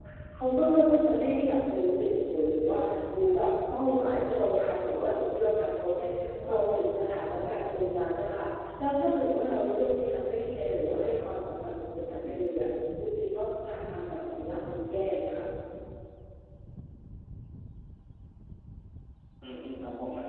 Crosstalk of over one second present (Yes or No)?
No